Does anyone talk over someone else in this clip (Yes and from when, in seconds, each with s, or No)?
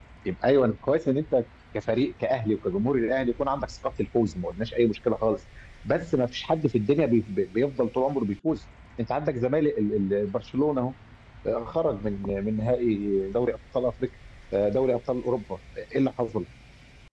No